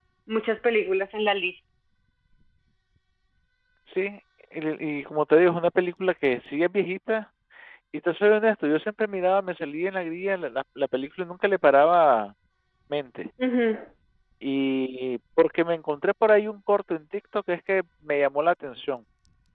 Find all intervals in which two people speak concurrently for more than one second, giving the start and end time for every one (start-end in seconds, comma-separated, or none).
none